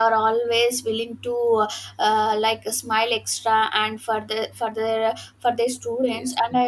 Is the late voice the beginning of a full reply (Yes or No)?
No